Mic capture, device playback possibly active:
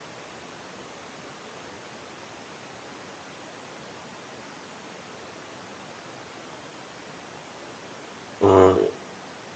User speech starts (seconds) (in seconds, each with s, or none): 8.4 s